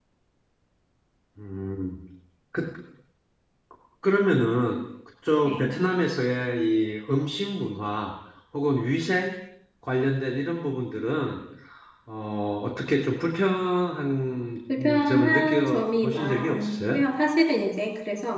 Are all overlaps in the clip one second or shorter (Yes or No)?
No